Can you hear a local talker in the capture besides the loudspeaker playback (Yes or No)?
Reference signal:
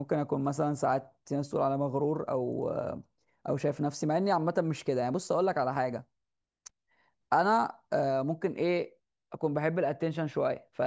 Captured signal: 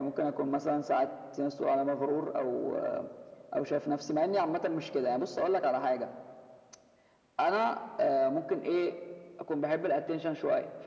No